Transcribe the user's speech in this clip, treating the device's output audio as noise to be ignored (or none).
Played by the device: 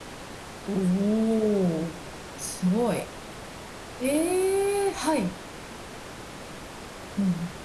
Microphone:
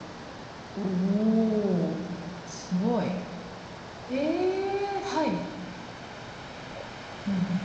none